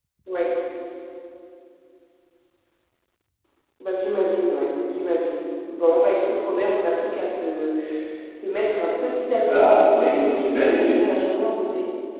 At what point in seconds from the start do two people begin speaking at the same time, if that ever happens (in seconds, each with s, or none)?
9.5 s